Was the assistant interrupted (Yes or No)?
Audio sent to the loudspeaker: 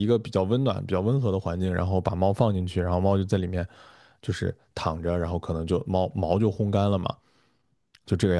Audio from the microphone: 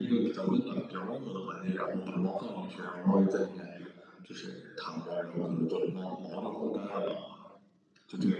No